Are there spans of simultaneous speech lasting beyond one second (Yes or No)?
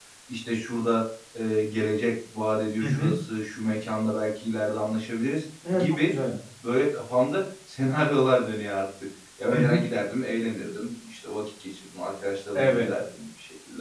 No